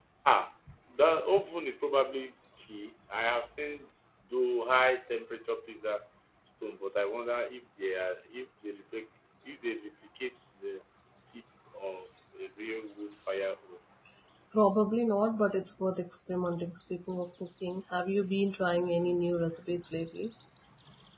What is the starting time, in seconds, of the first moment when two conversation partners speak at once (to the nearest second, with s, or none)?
none